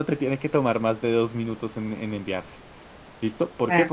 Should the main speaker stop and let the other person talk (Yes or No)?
No